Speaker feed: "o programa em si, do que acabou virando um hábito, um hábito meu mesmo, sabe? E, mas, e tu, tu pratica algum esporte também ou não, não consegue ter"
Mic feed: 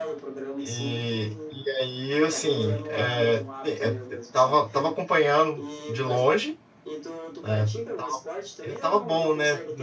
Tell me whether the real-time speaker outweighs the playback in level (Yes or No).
Yes